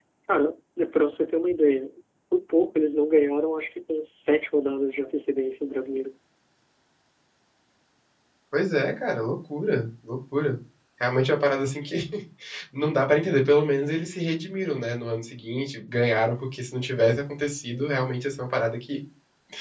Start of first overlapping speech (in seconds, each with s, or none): none